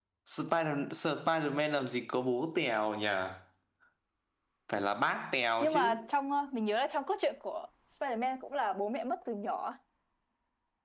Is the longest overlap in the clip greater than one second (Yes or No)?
No